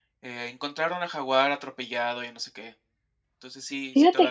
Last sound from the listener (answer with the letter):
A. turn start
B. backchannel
A